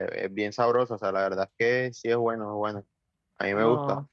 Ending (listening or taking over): listening